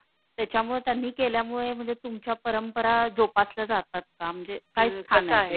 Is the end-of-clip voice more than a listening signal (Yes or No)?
Yes